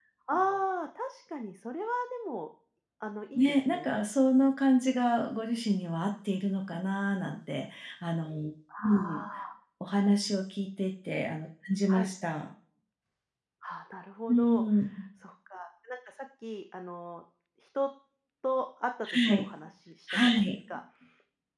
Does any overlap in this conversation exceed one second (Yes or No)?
No